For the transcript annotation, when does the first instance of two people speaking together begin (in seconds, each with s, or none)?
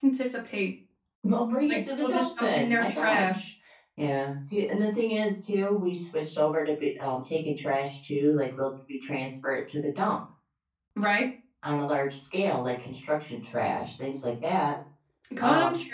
1.7 s